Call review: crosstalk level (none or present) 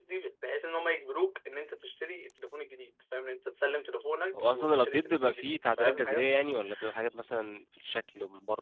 present